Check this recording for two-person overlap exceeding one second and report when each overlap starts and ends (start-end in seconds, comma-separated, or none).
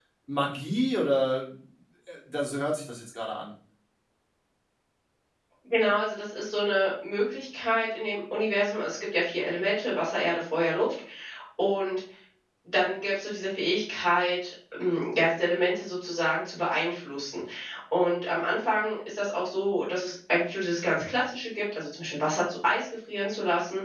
none